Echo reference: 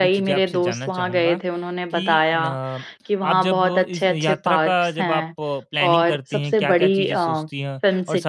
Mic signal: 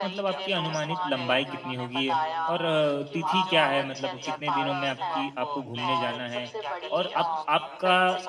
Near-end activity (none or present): present